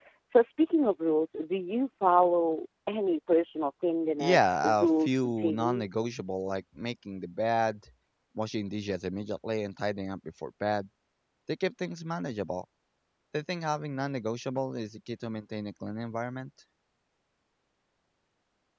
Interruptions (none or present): present